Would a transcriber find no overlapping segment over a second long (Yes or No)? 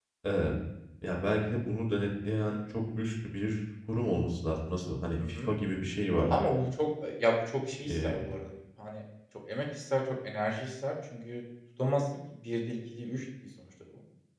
Yes